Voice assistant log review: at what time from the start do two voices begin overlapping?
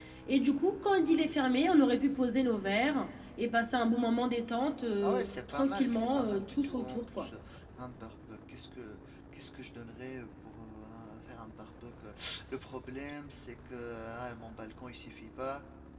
5.0 s

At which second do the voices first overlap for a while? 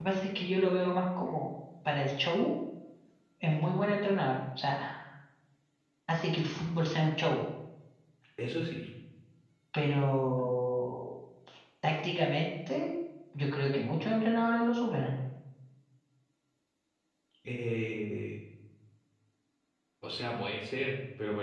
none

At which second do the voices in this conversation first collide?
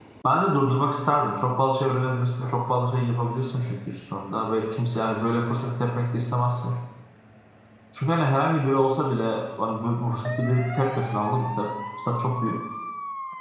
none

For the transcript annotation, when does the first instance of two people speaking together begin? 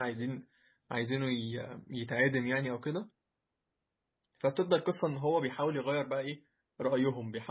none

